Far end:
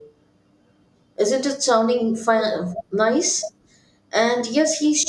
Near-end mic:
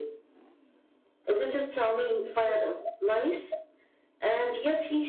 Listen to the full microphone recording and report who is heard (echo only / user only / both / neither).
echo only